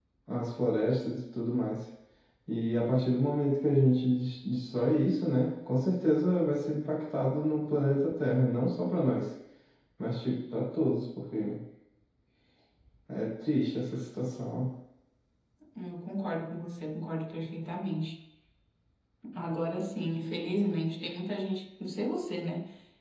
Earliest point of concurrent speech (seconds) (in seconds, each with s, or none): none